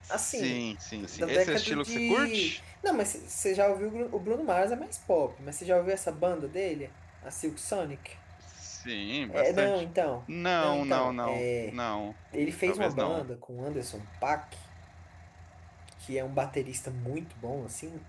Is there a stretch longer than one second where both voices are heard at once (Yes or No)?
Yes